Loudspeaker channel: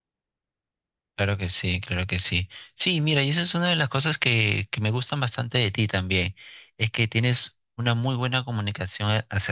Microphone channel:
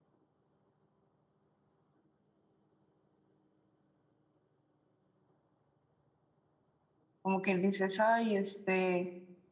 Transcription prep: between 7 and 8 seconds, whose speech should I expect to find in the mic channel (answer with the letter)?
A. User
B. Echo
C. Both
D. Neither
A